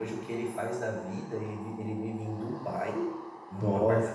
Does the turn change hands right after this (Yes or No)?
No